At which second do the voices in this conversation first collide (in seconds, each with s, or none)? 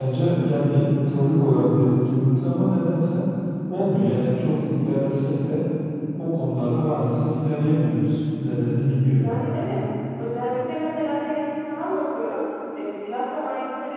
none